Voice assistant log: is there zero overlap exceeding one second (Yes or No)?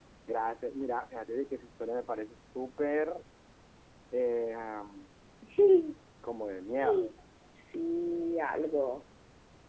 Yes